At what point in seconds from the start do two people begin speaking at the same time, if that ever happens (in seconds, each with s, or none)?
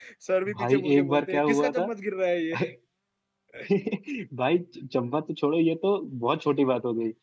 0.6 s